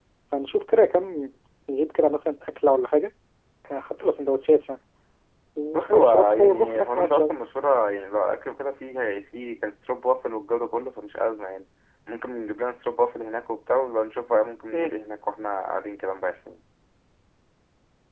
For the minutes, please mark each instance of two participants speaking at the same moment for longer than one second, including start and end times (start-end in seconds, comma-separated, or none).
5.7-7.3